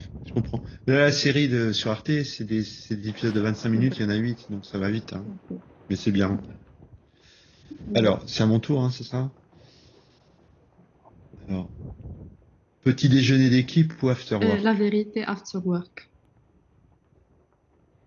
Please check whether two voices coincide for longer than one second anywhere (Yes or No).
No